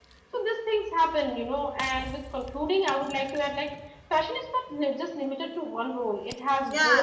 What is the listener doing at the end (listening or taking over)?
taking over